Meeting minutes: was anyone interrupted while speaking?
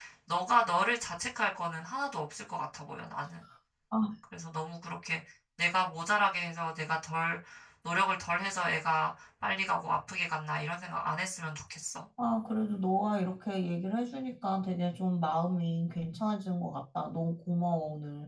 No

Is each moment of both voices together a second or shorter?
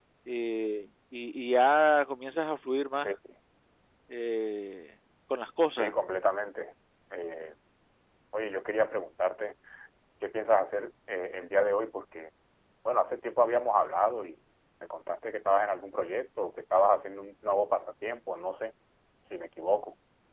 Yes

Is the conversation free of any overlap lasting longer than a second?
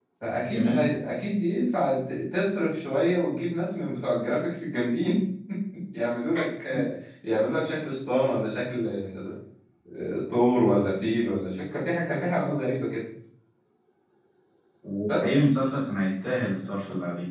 Yes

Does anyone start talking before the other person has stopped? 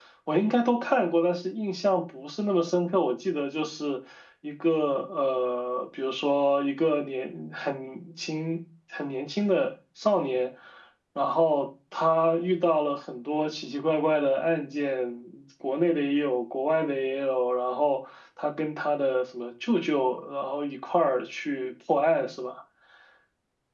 No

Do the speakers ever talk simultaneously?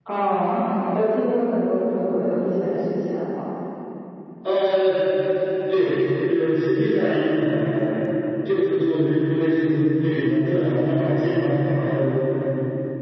No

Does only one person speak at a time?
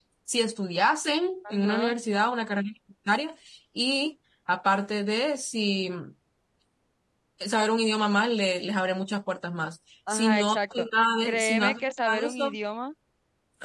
No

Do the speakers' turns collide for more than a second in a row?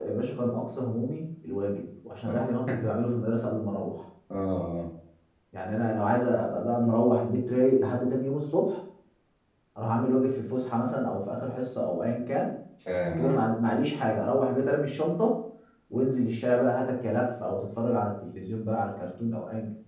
No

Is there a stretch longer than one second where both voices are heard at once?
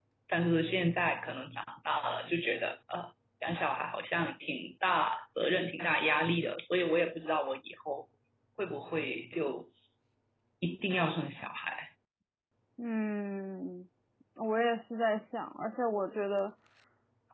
No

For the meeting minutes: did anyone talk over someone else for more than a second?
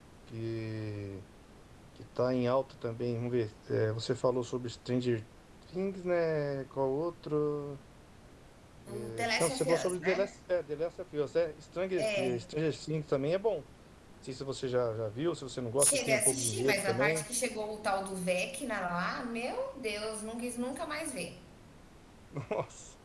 Yes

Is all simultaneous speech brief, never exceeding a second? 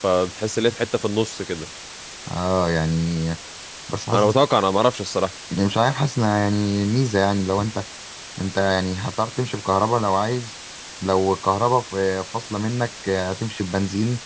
Yes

